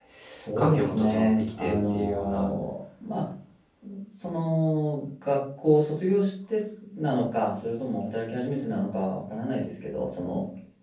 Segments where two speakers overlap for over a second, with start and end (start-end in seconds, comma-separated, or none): 0.6-2.5